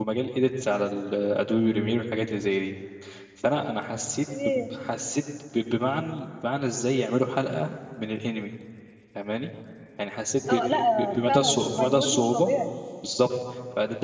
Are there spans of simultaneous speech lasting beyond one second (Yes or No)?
Yes